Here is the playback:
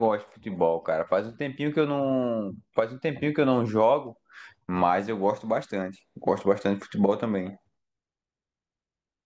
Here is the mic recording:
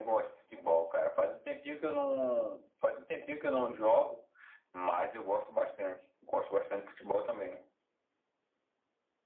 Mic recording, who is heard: echo only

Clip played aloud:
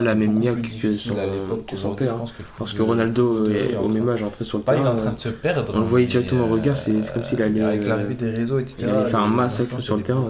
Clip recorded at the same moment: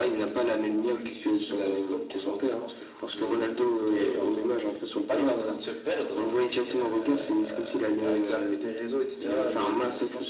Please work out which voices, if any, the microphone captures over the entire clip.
echo only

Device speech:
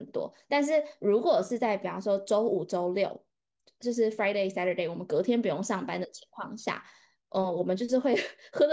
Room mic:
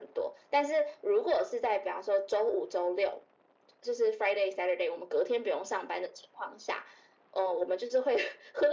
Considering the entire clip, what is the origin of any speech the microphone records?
echo only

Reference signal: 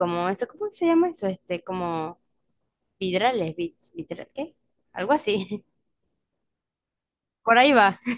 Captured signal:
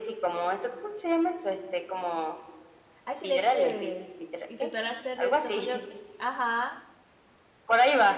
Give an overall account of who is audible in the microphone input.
both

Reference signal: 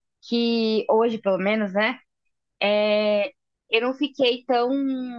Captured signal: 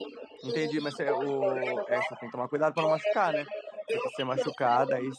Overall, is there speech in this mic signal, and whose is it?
both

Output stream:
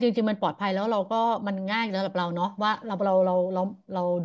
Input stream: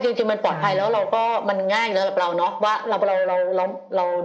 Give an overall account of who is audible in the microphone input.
both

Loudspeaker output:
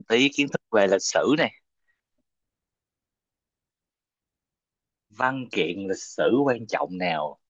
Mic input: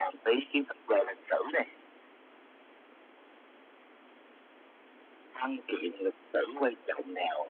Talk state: echo only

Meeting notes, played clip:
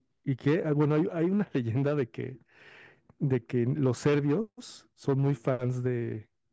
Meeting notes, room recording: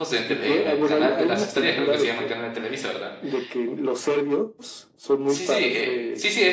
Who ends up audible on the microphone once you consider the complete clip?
both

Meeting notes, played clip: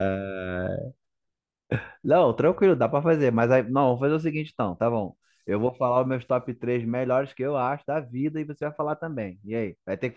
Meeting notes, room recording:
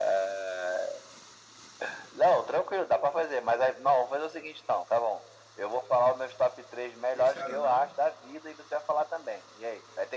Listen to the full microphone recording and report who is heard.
both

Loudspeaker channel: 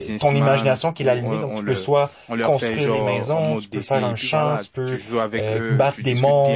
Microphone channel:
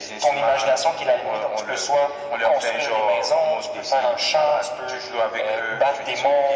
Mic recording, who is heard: echo only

